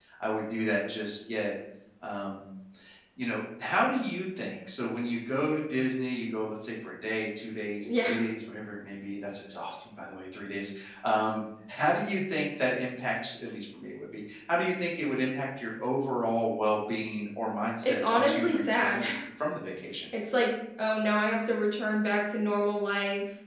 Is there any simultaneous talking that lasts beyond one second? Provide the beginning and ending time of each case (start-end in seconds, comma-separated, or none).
17.8-19.0